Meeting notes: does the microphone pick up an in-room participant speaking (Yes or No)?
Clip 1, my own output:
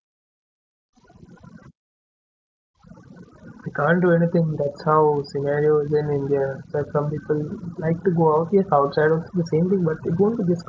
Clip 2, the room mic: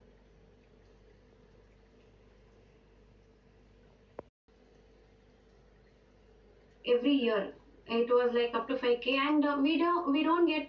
Yes